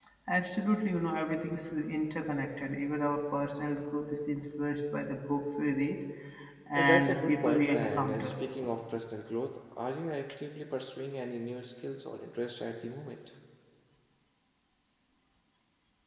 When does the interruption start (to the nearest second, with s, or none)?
7 s